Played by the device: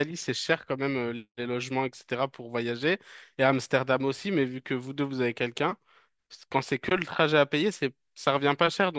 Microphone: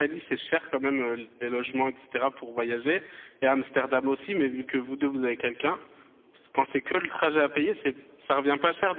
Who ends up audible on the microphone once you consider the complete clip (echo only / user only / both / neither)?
echo only